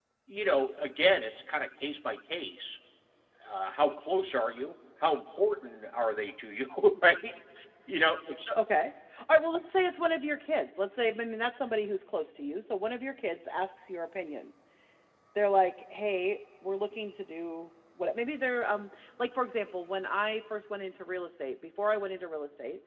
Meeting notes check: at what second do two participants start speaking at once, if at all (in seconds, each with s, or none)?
none